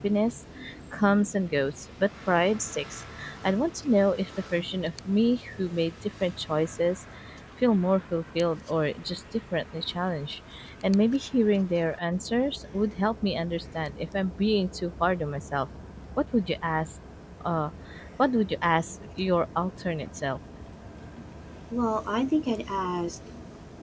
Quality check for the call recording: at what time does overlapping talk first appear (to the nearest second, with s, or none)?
none